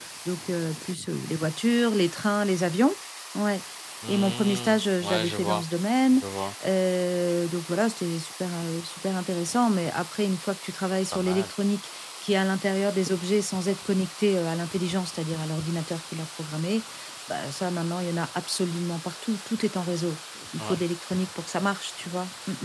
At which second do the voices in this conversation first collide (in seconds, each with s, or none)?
4.1 s